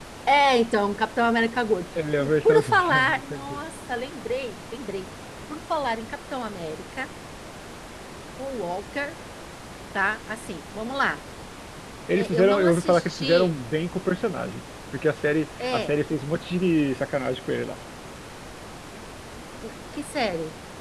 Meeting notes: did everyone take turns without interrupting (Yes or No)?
No